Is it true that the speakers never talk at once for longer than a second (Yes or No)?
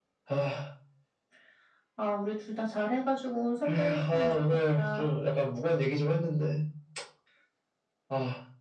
No